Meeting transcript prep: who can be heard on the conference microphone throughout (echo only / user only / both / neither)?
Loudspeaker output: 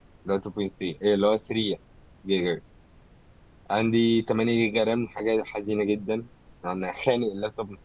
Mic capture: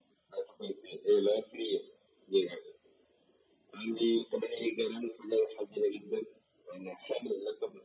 echo only